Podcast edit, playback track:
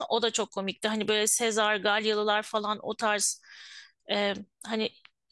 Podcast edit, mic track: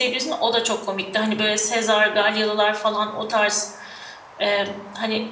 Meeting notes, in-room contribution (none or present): none